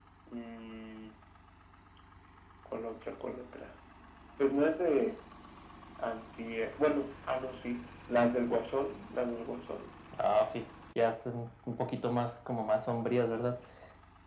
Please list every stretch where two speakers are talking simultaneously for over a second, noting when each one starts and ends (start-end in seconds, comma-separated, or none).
none